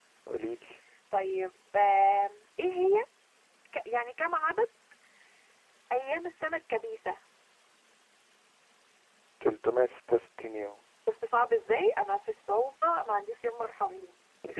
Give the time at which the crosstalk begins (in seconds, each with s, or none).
none